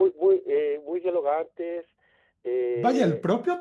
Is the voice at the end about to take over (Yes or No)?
Yes